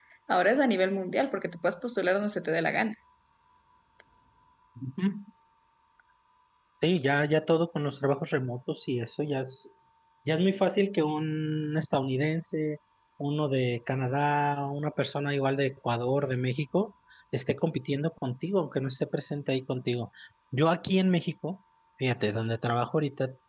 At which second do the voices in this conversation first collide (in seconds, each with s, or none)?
none